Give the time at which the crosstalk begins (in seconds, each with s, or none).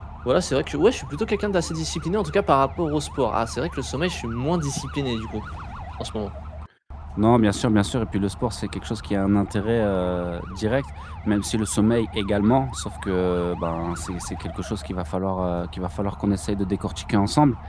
none